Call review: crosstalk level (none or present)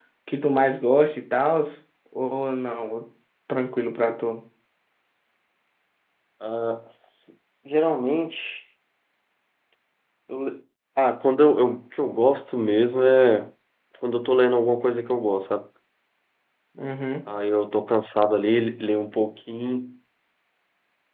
none